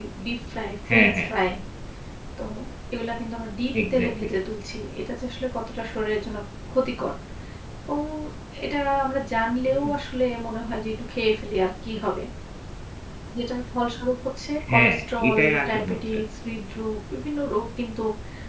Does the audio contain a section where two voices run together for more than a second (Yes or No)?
Yes